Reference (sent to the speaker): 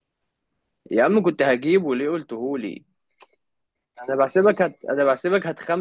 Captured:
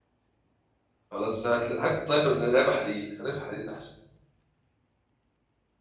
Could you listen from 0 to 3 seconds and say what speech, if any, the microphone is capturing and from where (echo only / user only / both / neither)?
user only